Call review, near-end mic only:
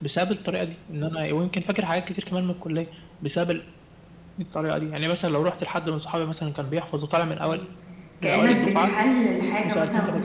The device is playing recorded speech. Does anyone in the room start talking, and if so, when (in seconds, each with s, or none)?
7.4 s